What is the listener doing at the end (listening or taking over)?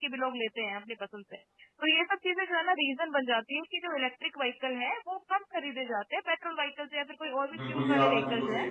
taking over